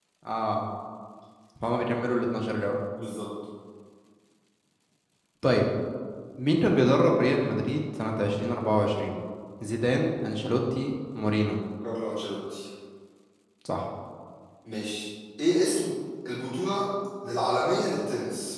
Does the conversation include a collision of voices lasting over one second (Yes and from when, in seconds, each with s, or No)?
No